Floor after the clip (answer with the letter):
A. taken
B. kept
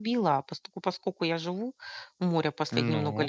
B